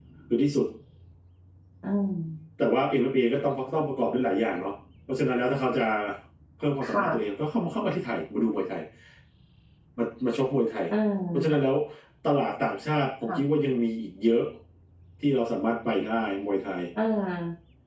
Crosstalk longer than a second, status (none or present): none